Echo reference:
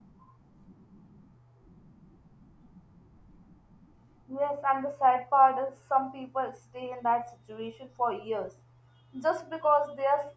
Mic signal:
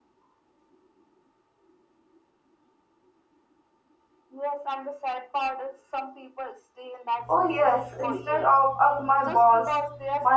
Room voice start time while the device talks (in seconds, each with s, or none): 7.3 s